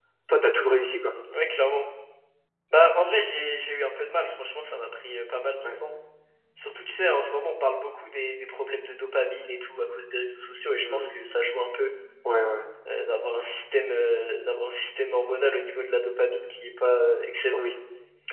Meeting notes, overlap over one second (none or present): none